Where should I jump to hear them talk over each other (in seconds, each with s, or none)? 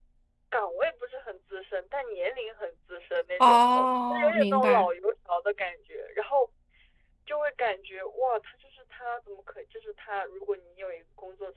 3.4 s